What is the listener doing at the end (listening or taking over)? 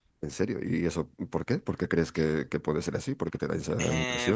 taking over